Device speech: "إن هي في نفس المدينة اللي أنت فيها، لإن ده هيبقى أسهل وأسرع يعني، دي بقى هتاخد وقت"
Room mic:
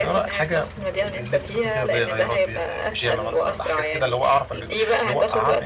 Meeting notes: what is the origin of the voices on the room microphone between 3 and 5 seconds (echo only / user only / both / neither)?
both